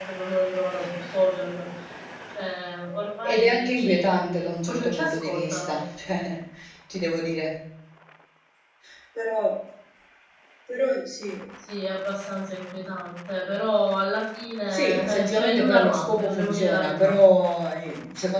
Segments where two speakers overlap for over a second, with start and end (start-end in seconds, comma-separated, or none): 3.2-5.8, 14.7-17.1